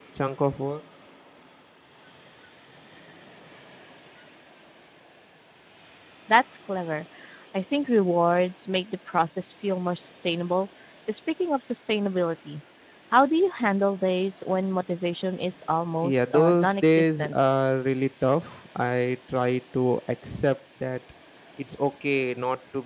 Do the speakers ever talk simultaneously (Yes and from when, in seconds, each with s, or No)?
Yes, from 16.0 s